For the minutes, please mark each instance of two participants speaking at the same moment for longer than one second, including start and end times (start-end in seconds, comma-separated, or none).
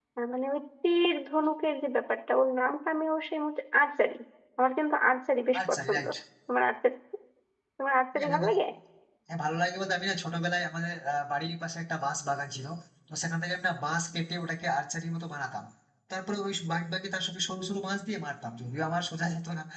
none